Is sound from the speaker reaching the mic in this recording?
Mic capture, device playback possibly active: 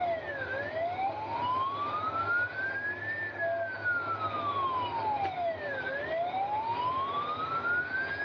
No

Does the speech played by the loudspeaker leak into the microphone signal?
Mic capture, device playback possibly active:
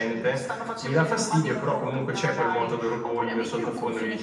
Yes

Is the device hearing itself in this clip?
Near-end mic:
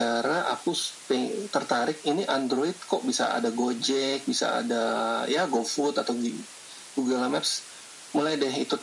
Yes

